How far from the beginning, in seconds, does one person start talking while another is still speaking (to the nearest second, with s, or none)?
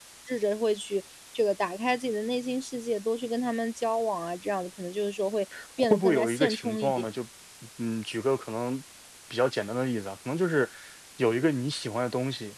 6 s